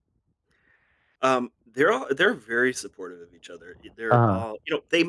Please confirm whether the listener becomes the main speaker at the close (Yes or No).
No